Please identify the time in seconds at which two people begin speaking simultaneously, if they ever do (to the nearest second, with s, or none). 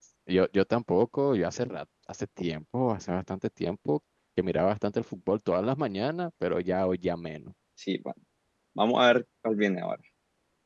none